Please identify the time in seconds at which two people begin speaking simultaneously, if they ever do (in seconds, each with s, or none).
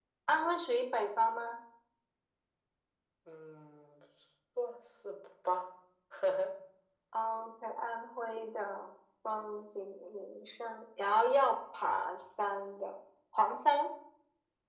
none